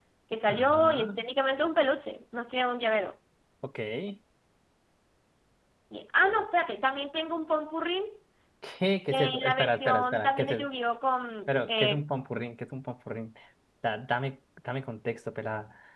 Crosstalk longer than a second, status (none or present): present